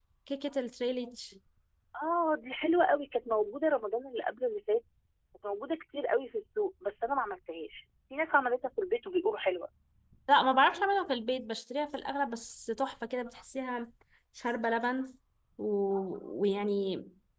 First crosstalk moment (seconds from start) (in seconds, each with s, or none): none